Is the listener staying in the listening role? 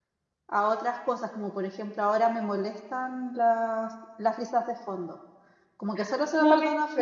Yes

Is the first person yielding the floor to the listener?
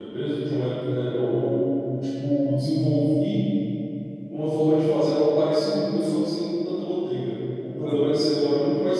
No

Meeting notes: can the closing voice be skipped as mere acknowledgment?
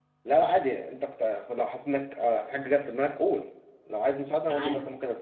No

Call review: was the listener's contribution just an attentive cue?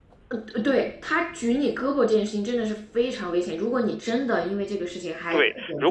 No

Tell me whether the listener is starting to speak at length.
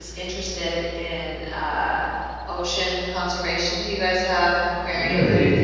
Yes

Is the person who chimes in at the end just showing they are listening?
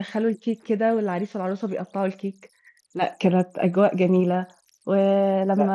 Yes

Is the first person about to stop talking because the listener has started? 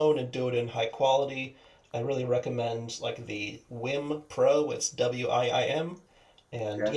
No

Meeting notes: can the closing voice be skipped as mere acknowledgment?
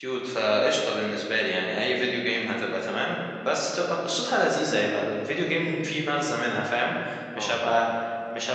Yes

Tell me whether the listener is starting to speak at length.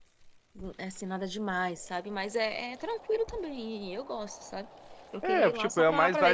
Yes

